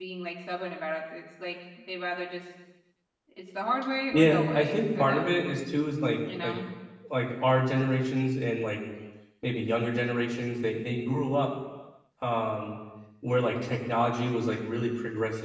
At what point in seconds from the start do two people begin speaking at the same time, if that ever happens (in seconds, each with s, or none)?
4.1 s